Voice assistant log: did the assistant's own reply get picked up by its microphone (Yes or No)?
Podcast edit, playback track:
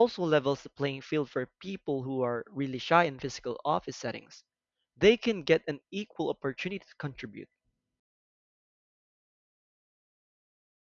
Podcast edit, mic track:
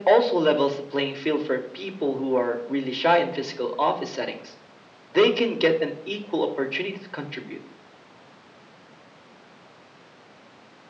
Yes